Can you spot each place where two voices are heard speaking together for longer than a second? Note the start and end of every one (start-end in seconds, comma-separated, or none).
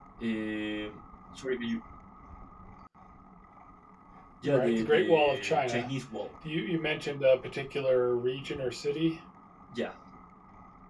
4.4-5.9